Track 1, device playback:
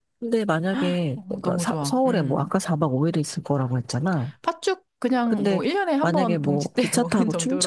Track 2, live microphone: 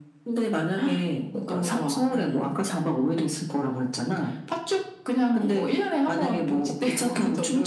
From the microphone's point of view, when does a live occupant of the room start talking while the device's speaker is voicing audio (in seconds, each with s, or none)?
none